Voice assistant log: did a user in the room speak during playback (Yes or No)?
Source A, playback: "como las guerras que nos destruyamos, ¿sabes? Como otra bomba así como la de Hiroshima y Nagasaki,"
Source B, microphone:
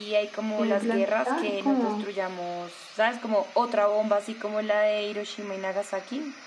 Yes